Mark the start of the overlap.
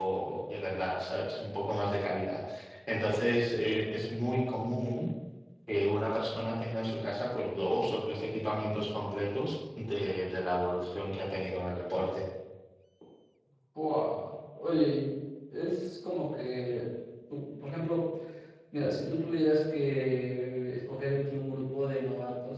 none

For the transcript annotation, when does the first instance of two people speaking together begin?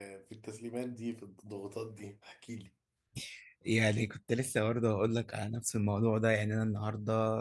none

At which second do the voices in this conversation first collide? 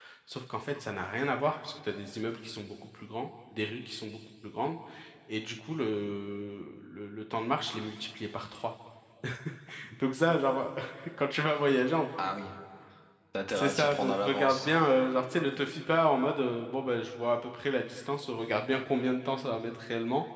13.5 s

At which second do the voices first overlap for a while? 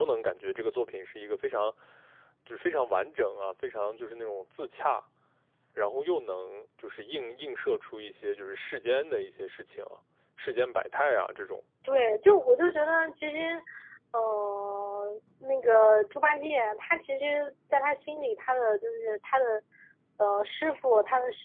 none

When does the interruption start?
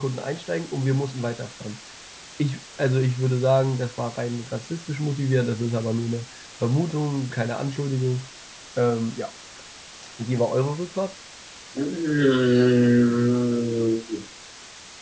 none

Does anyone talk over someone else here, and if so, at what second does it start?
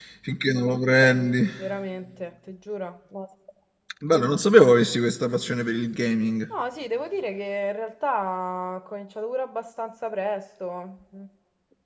none

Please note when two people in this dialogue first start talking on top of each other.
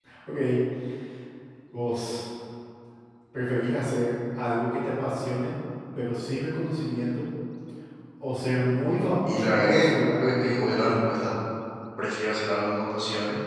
9.2 s

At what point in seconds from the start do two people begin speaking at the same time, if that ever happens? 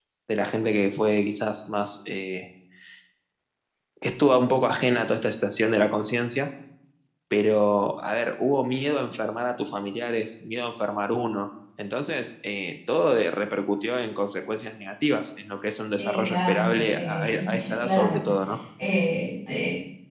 16.0 s

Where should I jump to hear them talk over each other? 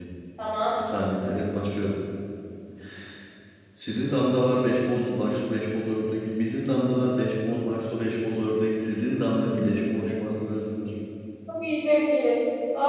none

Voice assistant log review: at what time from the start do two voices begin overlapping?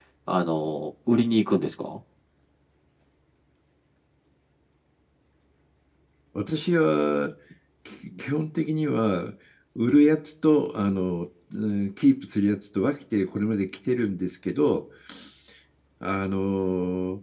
none

